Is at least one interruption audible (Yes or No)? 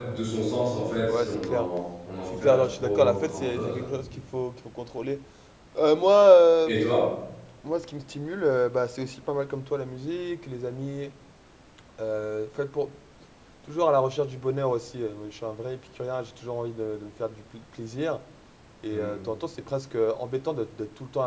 Yes